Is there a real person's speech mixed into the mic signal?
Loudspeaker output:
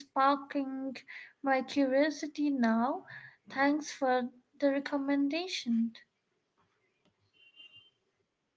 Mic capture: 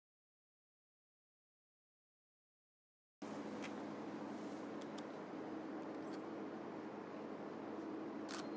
No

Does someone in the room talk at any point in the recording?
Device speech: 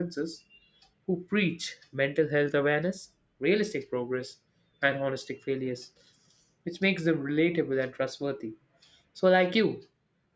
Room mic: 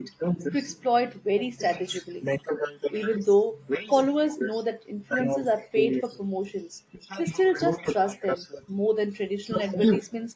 Yes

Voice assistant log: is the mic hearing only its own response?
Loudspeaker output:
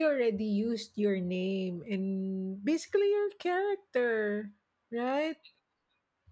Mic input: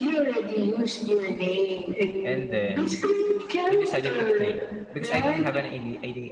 No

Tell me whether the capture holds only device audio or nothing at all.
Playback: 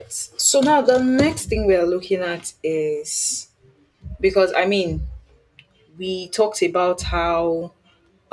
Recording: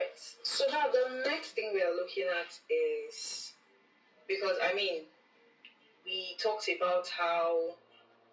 Yes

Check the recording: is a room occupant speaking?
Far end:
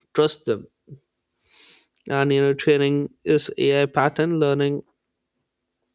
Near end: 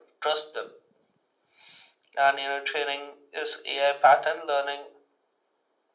No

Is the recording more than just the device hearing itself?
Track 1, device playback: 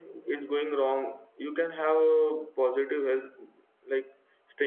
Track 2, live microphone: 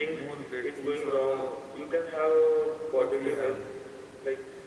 Yes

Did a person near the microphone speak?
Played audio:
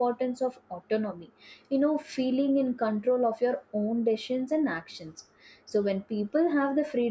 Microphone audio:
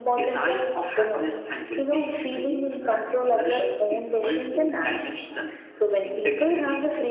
Yes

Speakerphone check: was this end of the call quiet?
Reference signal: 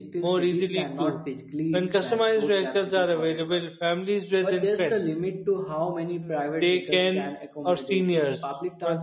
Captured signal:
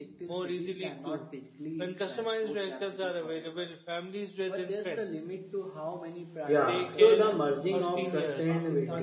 No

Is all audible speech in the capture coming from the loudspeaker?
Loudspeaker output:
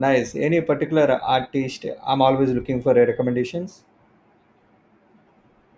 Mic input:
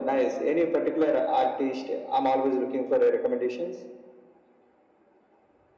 Yes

